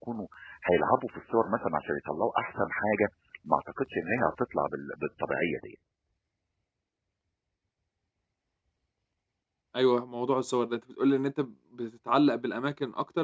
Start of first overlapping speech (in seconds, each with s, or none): none